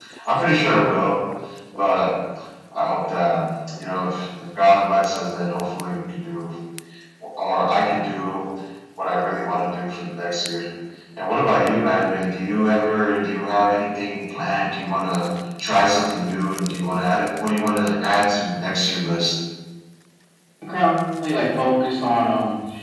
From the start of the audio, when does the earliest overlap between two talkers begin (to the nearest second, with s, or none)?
none